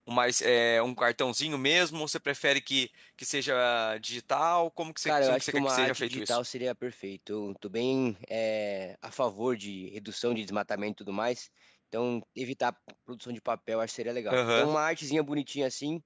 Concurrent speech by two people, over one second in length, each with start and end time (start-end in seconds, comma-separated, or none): 5.0-6.4